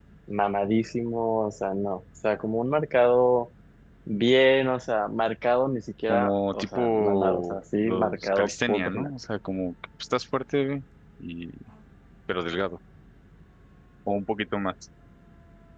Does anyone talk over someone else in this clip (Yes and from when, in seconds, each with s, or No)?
Yes, from 6.1 s